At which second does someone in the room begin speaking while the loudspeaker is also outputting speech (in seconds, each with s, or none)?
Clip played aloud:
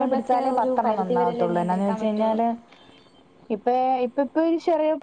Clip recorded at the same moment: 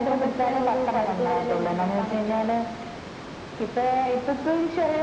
none